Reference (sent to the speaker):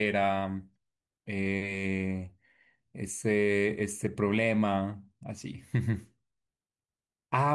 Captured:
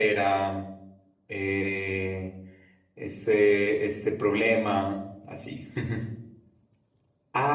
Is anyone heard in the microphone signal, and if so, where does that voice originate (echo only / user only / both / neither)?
echo only